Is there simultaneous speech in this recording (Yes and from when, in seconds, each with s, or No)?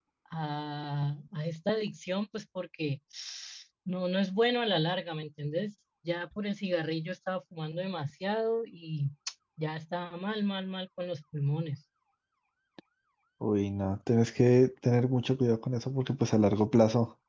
No